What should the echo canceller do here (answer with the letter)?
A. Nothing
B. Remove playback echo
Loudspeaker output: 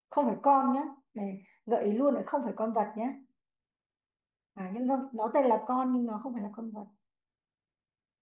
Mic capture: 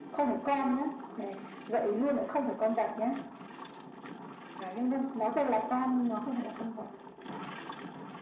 B